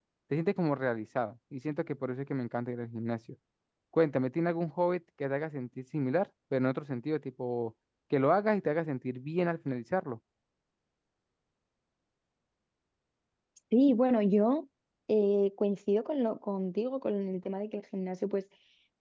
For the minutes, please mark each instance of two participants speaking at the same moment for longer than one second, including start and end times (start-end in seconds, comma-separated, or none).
none